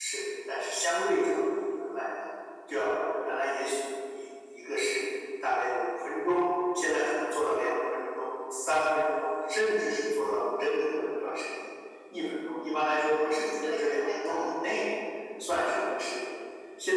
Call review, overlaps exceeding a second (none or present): present